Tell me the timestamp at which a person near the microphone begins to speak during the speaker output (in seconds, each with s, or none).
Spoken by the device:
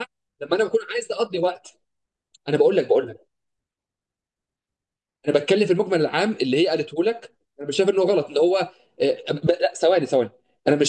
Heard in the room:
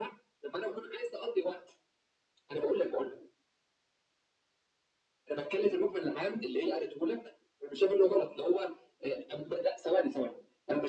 none